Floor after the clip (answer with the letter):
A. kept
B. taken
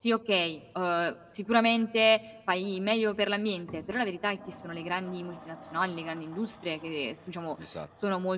A